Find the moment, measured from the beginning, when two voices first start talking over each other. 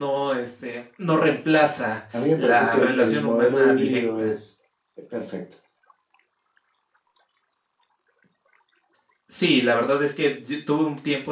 2.1 s

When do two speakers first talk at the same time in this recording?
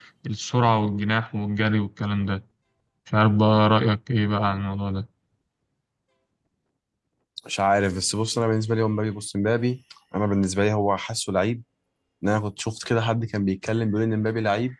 none

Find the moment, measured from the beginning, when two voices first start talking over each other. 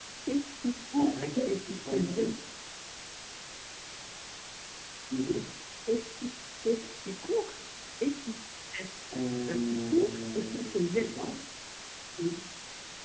1.0 s

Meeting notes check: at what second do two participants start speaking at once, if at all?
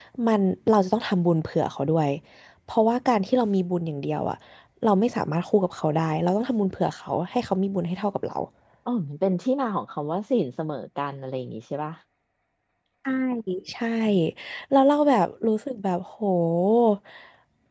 none

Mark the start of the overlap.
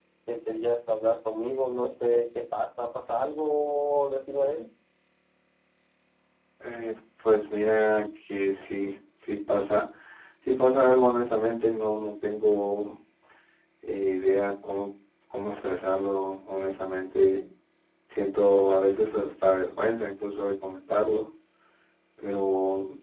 none

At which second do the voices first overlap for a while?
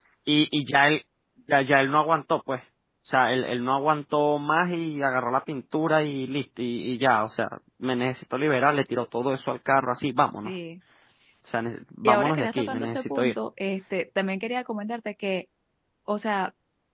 12.1 s

